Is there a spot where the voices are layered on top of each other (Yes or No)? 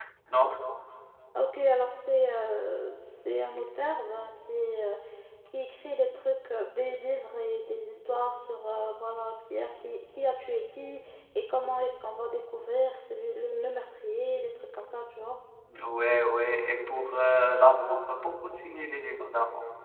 No